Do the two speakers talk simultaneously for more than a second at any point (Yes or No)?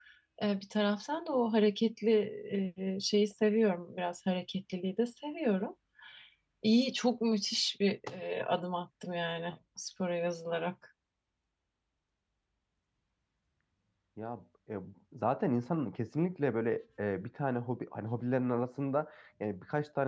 No